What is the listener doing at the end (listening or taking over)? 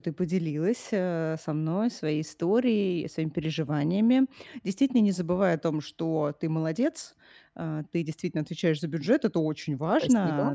listening